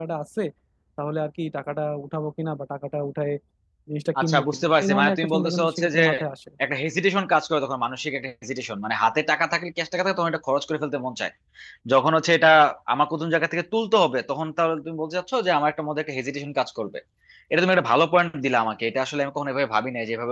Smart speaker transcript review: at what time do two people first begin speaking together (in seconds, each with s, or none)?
4.2 s